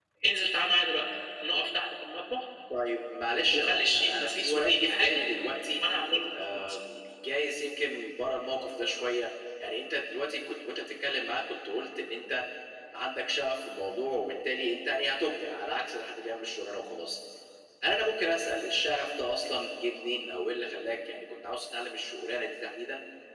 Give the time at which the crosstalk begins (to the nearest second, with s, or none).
4 s